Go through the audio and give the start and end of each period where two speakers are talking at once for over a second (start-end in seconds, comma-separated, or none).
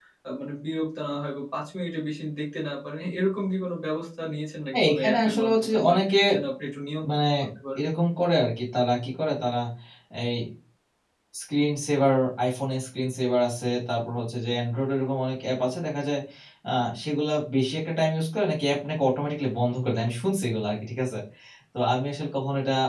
4.7-5.9